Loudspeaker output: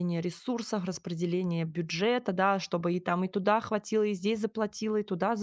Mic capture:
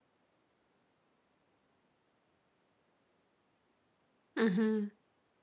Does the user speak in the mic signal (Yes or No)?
Yes